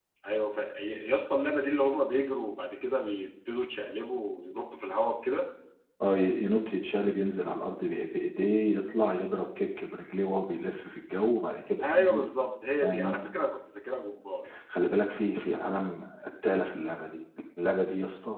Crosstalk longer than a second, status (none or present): none